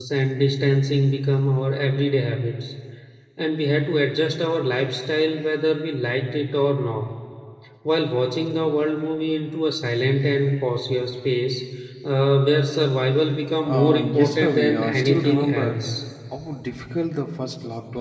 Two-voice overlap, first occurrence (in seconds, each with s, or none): 13.6 s